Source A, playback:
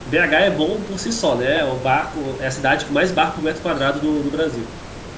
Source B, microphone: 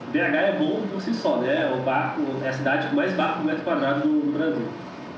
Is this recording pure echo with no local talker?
Yes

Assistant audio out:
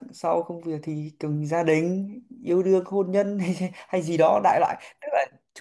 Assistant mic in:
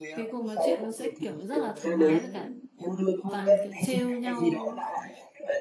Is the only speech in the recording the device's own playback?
No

